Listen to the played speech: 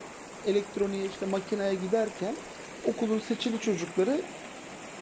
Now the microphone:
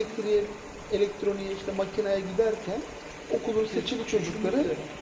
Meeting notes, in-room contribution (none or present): present